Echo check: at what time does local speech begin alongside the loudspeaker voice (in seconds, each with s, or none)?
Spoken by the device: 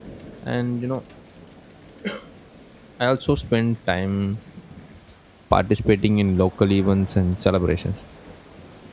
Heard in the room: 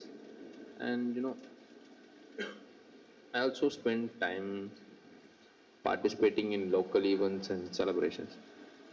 none